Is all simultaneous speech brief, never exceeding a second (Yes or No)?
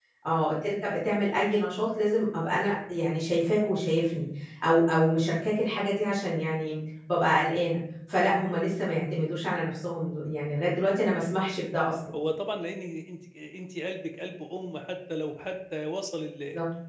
Yes